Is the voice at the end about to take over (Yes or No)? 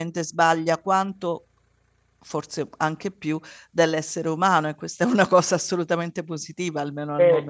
Yes